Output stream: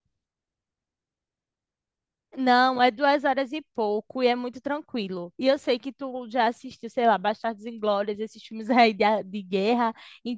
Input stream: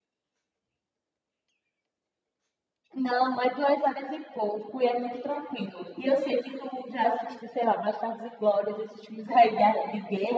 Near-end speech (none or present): none